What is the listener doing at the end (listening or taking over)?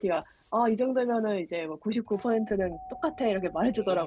taking over